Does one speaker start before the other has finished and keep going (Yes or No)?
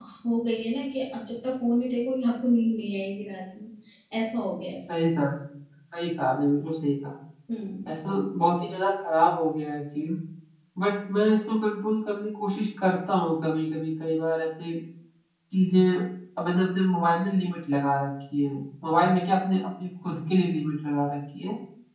No